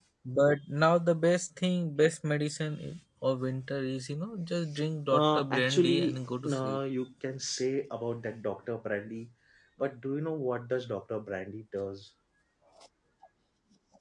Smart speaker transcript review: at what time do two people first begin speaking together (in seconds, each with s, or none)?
5.1 s